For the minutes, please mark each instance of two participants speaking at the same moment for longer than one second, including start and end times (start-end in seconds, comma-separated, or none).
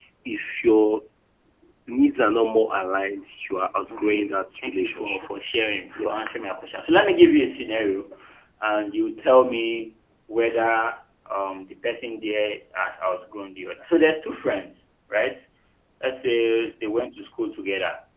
3.9-5.2